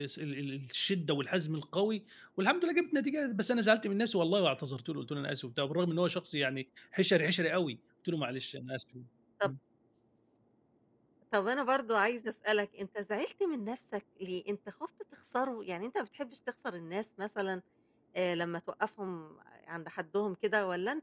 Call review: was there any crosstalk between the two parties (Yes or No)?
No